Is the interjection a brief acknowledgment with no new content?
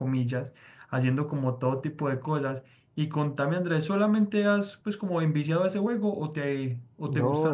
No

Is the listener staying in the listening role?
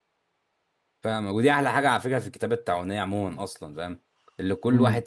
Yes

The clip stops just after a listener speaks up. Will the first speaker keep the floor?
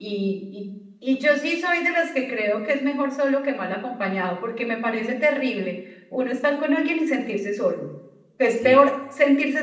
Yes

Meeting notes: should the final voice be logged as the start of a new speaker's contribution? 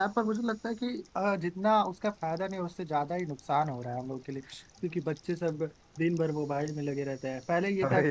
Yes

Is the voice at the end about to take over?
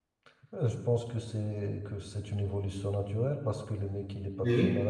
No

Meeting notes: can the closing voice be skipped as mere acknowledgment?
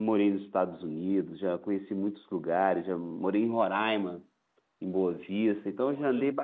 Yes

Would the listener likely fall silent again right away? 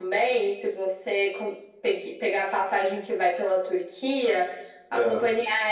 Yes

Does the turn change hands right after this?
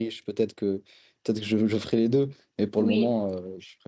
No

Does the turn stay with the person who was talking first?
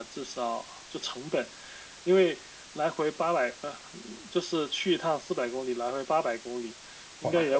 Yes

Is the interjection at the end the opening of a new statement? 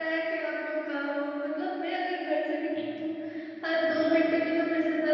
No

